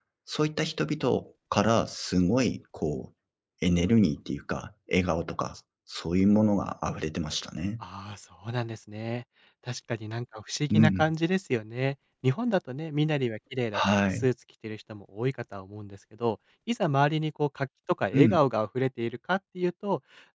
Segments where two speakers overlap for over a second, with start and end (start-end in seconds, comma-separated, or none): none